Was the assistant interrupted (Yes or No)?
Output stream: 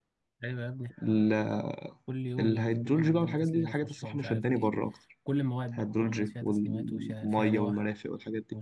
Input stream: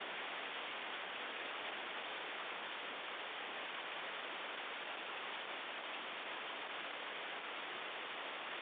No